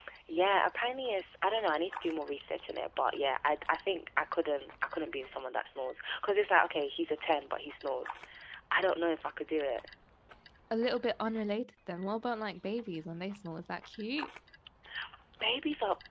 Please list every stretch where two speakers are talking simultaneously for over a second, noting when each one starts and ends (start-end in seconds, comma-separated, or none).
none